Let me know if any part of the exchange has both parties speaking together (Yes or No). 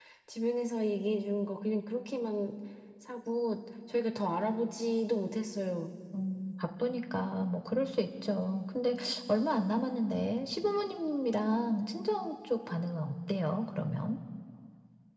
No